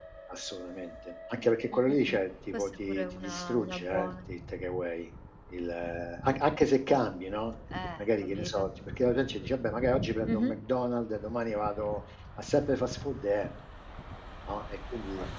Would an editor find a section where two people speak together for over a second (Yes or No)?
Yes